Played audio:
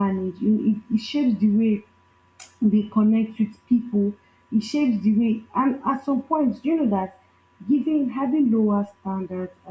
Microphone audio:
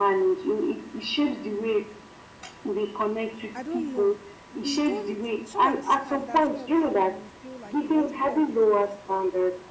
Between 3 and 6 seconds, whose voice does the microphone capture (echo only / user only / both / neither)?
both